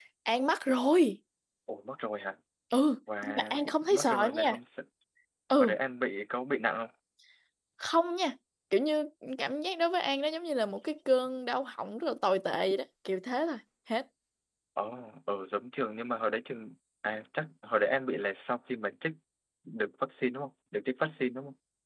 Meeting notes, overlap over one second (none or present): present